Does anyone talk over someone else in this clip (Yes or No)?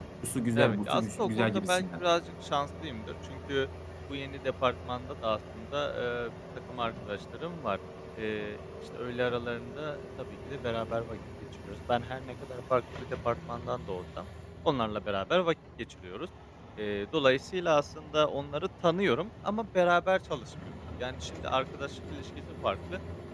Yes